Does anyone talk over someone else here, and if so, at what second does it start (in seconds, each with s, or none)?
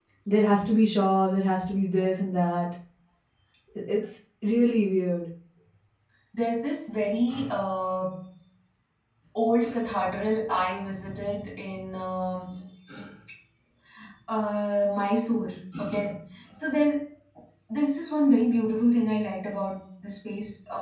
none